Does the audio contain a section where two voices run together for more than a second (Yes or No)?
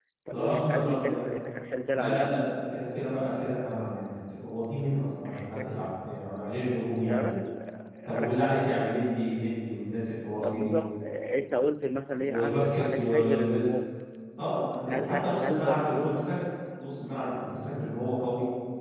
Yes